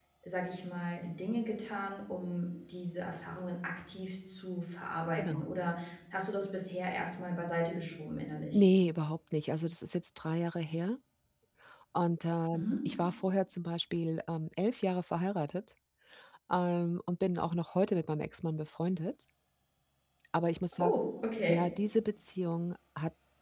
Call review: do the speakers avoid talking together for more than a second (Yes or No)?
Yes